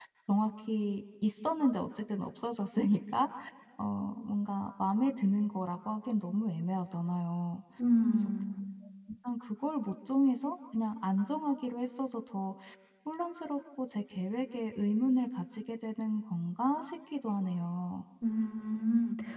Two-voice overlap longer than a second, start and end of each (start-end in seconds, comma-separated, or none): none